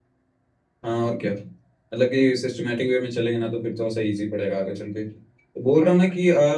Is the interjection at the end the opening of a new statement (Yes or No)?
No